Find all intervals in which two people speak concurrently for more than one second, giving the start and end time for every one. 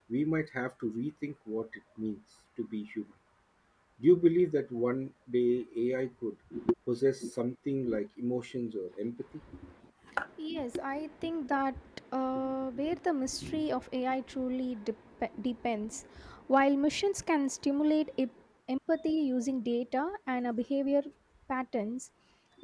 none

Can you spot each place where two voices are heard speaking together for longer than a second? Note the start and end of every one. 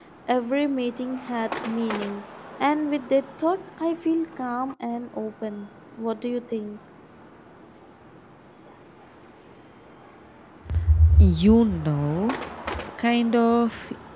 none

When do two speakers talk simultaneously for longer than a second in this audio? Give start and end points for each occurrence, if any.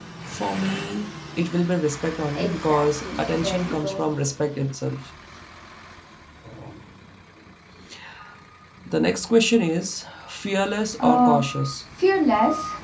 2.3-4.1

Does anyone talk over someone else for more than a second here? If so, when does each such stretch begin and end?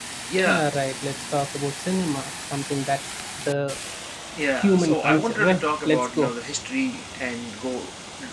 4.6-6.3

